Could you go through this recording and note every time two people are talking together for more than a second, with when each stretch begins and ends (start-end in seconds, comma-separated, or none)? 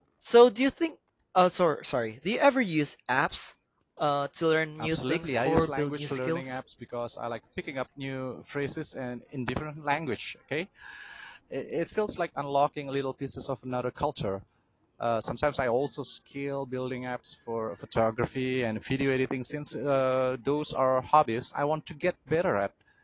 4.8-6.6